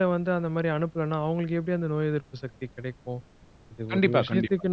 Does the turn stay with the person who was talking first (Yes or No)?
Yes